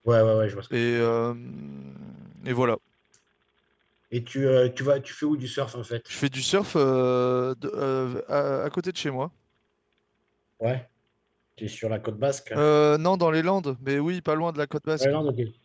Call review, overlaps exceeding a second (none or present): none